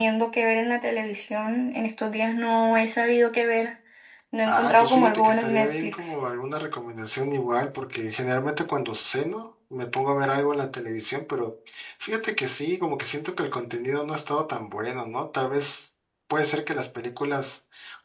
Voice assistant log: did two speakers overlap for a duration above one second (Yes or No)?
Yes